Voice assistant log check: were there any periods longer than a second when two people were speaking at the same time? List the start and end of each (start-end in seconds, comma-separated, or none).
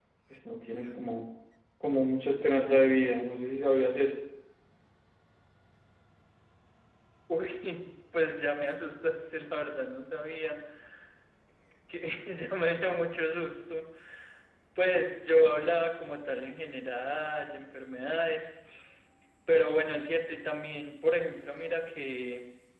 none